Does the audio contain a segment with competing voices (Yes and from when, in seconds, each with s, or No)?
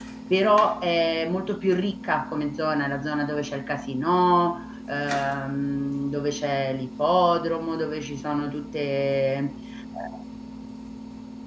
No